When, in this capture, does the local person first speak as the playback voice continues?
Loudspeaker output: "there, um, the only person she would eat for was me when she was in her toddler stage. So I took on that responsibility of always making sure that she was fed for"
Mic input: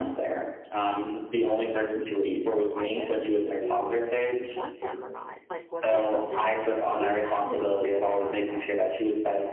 2.7 s

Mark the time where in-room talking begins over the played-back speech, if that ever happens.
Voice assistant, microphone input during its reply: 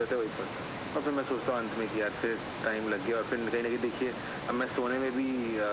none

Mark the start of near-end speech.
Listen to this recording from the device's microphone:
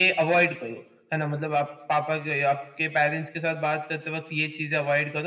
none

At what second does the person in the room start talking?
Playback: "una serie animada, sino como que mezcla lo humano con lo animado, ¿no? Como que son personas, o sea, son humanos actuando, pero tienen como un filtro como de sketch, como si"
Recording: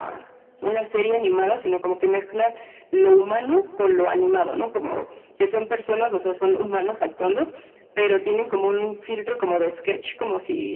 none

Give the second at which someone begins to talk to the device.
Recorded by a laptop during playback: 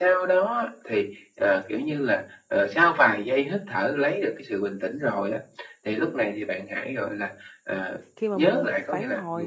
8.2 s

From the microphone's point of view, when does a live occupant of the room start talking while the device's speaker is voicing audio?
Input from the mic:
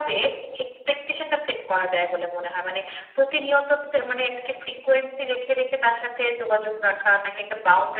none

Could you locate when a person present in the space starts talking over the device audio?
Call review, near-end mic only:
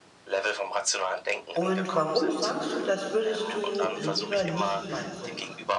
1.5 s

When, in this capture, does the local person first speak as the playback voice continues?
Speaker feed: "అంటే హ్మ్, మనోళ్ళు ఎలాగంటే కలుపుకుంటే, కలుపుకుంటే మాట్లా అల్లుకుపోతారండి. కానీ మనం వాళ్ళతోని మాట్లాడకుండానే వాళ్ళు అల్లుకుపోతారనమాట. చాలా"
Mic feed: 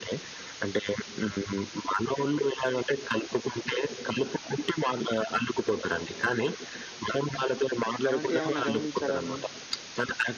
8.1 s

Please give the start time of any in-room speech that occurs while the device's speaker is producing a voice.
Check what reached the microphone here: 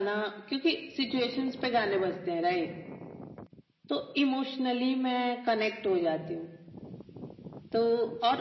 none

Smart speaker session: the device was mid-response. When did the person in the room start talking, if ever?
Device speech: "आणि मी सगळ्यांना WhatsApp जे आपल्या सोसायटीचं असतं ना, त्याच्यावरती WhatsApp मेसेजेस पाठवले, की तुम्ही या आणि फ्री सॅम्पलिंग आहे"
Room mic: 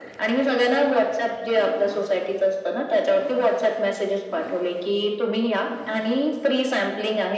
none

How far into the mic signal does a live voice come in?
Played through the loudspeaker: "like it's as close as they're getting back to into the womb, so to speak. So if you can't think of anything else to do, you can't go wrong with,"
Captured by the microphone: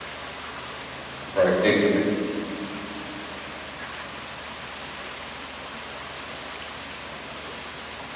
1.2 s

